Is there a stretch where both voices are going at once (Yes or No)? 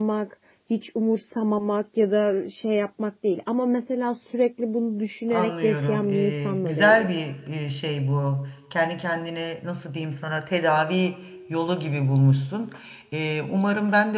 Yes